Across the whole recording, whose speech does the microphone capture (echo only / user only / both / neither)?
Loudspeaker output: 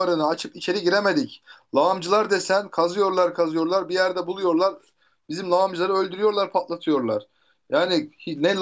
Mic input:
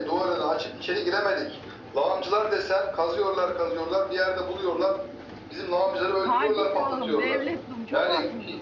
both